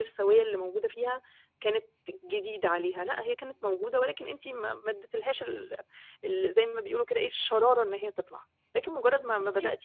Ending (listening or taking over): listening